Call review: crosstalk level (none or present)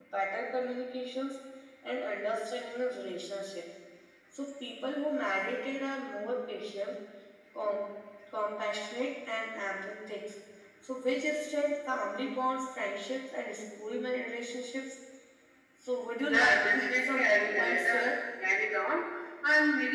present